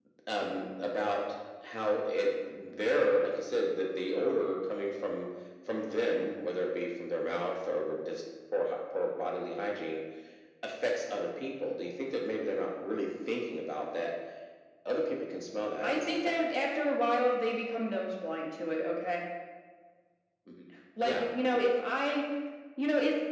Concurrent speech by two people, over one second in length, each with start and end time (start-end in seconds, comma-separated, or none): none